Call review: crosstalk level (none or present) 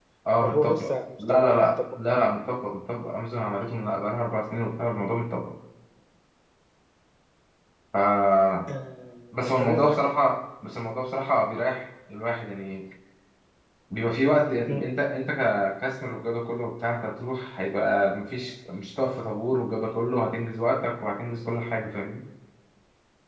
present